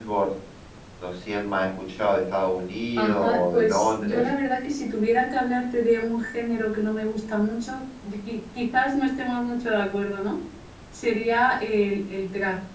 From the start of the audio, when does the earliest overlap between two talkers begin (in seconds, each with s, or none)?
3.0 s